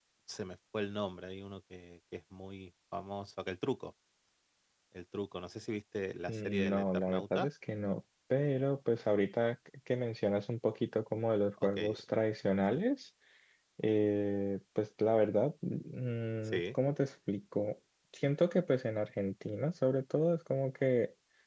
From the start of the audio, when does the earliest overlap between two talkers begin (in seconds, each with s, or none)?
6.3 s